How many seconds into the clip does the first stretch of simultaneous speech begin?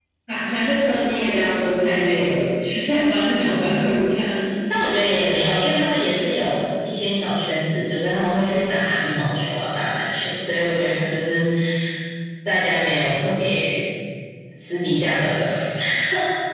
none

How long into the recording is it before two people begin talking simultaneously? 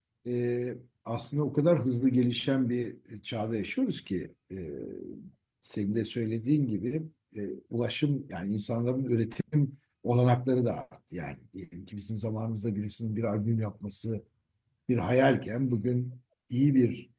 none

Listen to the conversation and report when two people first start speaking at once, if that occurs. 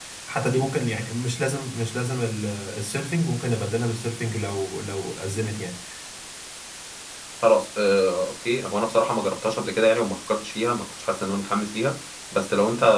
none

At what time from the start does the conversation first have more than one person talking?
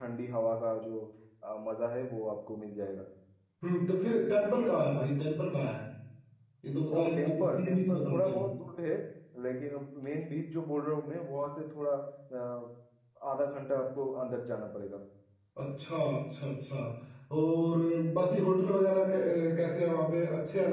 7.0 s

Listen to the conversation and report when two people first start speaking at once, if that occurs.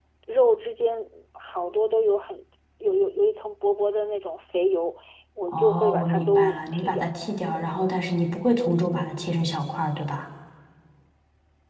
5.5 s

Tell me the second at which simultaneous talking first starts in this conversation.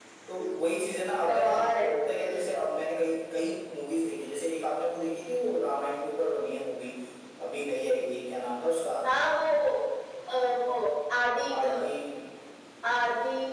1.3 s

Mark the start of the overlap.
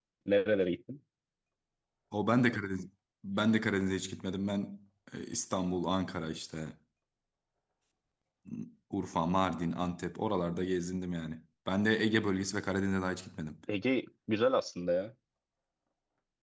none

